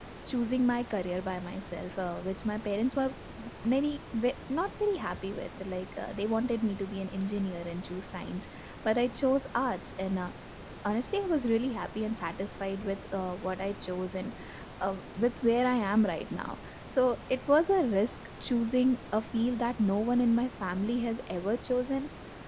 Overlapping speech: No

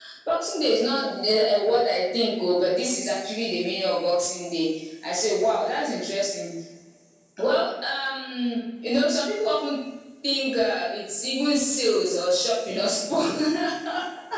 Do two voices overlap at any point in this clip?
No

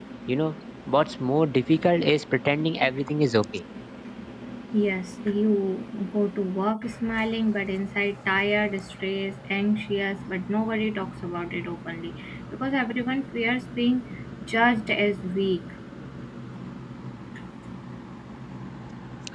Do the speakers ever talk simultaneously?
No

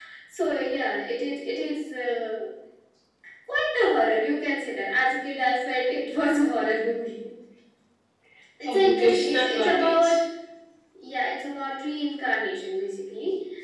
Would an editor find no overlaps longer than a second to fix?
No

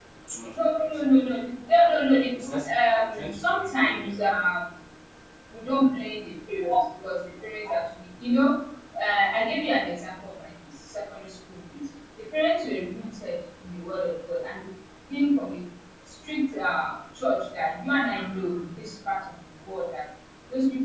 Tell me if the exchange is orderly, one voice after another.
No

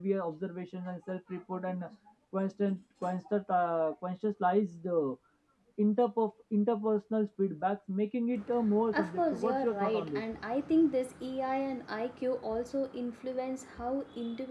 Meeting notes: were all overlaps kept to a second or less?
No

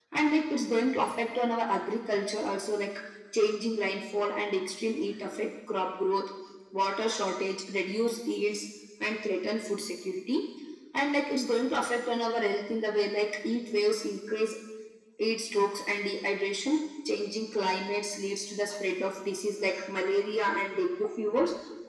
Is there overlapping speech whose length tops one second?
No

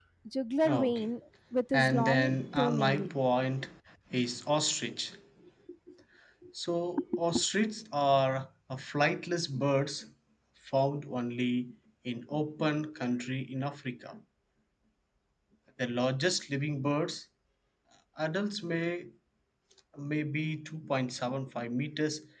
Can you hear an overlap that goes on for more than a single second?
Yes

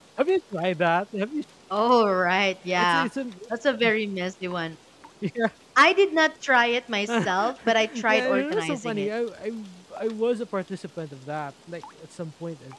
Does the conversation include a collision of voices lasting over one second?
Yes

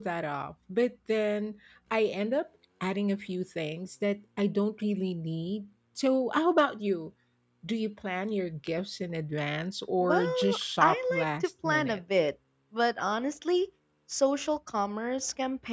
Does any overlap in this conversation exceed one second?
Yes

